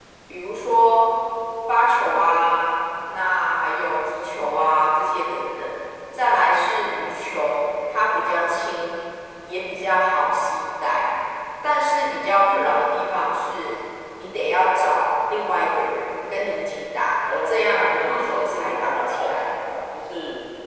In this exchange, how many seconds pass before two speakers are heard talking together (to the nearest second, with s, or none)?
17 s